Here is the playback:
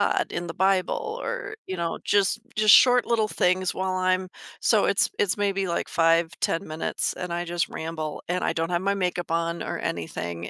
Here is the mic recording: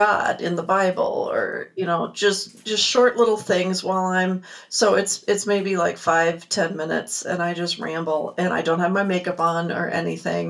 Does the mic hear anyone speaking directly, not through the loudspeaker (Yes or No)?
No